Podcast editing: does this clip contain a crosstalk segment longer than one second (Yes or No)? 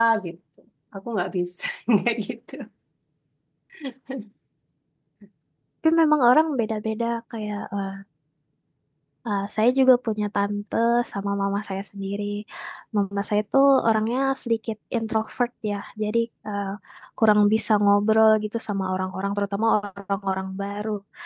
No